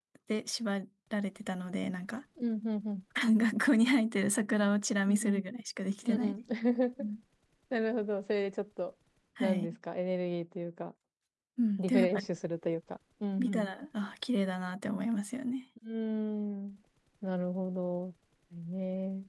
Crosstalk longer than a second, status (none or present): none